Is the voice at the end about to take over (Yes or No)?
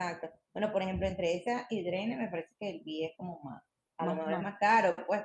No